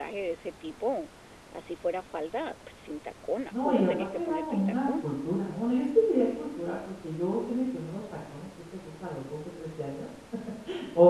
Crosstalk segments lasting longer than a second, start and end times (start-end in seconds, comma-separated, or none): 3.6-5.0